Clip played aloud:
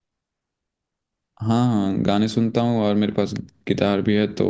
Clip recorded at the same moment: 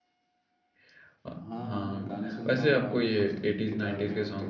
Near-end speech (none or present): present